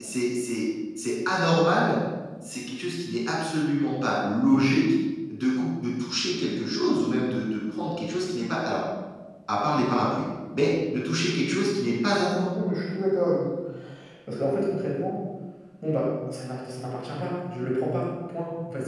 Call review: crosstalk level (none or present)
none